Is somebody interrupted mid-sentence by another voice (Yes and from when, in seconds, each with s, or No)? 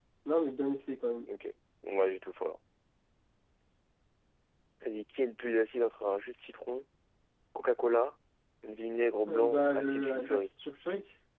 Yes, from 9.3 s